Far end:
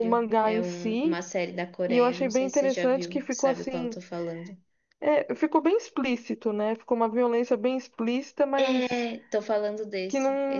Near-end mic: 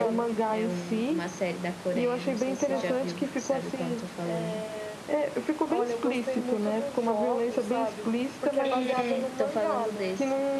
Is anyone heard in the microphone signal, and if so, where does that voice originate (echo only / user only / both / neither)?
both